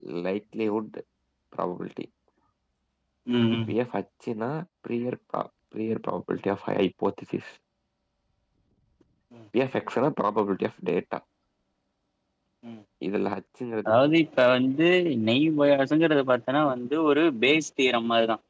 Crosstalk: none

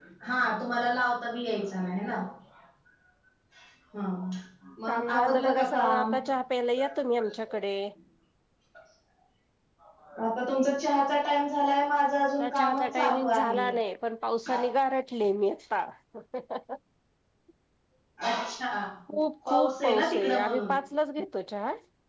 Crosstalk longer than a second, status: present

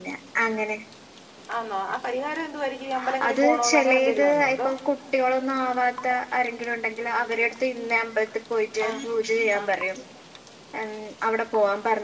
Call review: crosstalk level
present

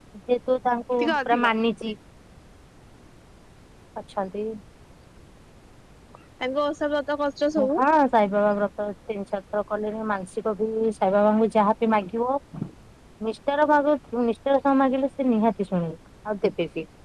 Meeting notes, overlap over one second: none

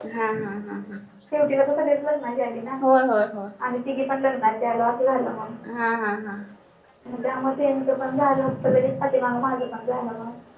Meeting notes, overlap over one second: none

